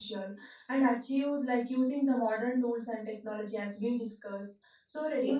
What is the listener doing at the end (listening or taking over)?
listening